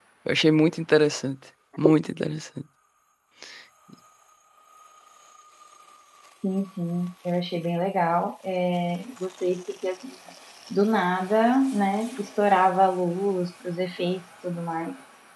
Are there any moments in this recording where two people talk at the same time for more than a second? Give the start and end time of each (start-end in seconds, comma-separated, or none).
none